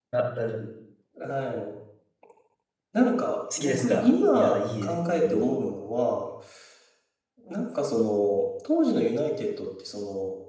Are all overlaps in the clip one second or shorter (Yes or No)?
No